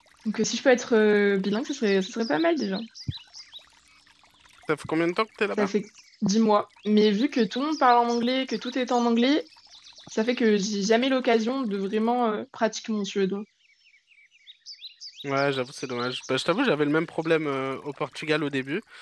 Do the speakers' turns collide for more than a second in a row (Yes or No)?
No